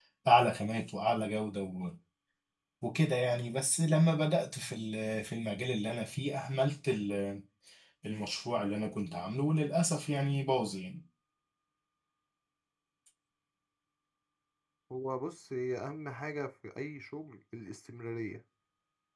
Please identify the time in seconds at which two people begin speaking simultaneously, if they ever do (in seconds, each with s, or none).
none